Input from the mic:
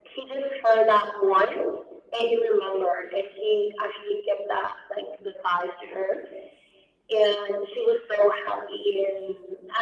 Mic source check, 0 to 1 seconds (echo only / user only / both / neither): echo only